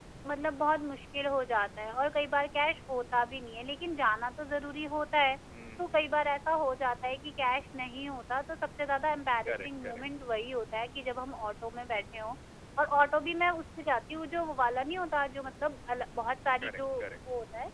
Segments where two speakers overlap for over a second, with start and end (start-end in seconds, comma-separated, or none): none